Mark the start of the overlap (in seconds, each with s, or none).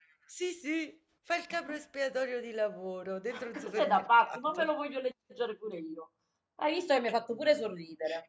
3.3 s